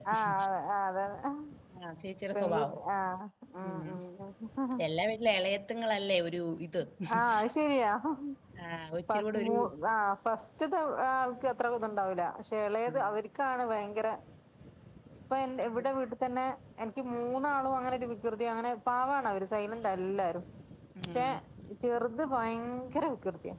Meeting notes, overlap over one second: none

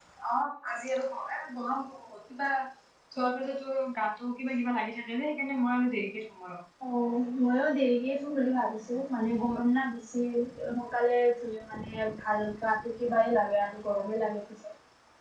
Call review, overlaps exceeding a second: none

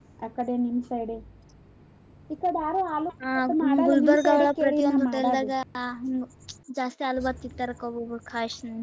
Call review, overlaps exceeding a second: present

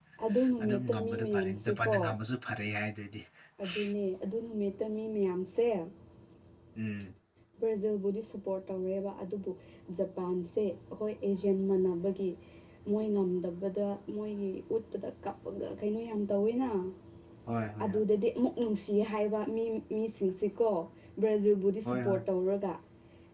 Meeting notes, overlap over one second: present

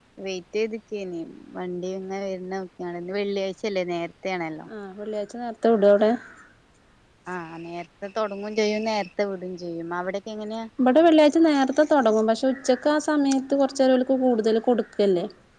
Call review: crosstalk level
none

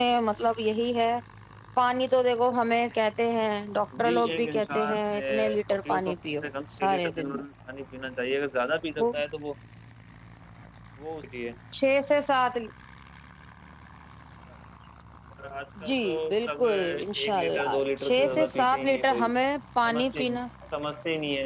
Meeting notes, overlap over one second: present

